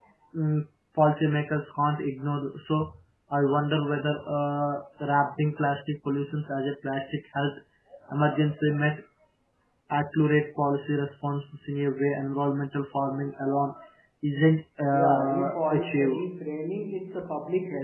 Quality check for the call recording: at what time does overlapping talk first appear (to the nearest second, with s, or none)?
15 s